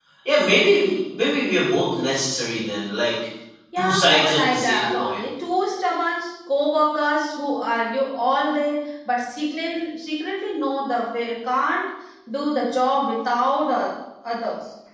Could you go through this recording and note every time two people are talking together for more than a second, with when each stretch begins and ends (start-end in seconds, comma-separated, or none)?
3.8-5.2